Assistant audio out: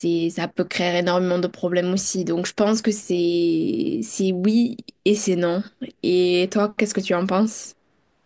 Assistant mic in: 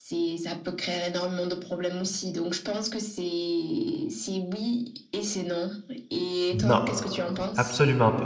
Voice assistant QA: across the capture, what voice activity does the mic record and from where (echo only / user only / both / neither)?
both